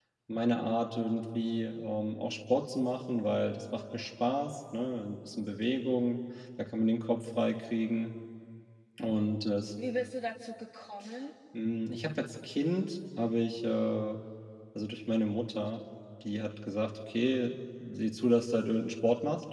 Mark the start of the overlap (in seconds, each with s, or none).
none